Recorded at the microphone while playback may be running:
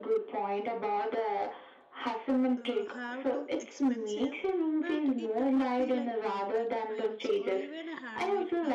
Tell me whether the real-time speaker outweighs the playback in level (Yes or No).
No